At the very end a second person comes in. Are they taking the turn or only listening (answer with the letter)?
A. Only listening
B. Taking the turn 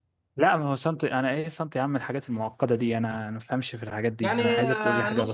B